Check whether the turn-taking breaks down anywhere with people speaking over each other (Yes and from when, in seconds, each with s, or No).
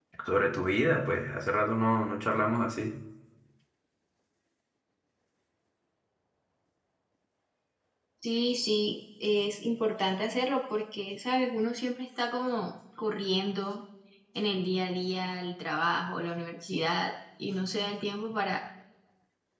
No